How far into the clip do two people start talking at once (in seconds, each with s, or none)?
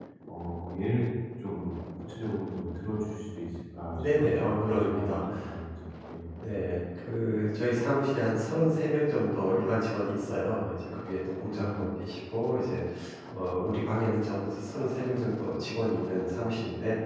3.9 s